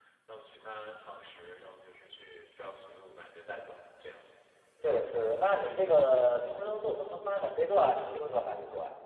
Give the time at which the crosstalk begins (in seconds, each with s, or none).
none